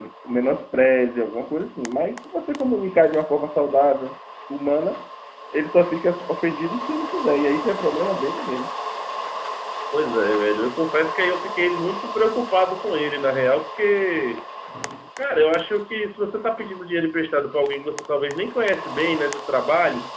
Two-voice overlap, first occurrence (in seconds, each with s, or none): none